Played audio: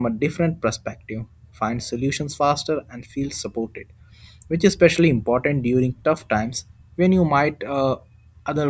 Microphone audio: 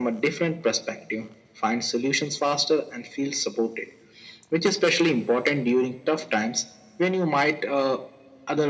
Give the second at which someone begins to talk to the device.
none

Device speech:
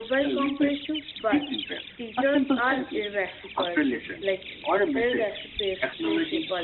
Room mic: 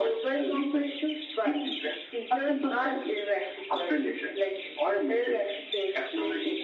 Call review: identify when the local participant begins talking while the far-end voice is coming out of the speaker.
none

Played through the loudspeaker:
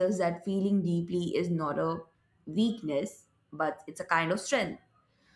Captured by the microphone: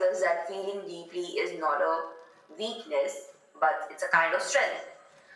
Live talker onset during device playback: none

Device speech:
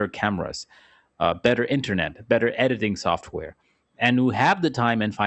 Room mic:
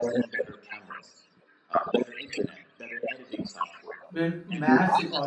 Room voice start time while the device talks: 4.1 s

